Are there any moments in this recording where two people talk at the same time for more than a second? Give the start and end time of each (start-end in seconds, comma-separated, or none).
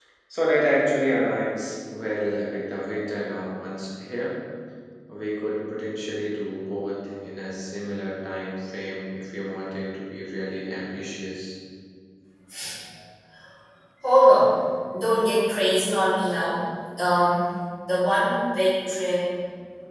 none